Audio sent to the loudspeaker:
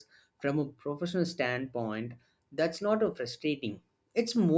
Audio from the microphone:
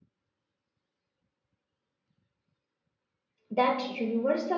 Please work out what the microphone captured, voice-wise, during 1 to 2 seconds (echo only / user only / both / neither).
neither